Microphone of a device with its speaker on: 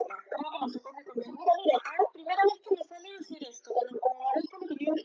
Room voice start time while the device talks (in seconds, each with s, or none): none